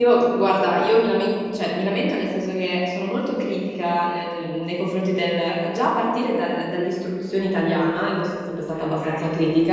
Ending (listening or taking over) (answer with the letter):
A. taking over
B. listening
B